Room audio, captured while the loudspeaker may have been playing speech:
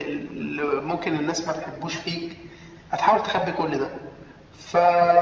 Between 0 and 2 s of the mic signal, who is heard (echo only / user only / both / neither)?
echo only